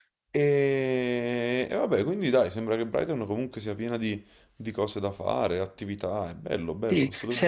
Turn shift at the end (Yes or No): Yes